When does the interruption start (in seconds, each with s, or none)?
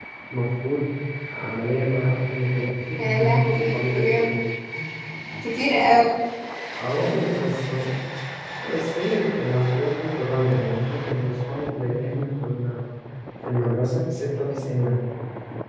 3.0 s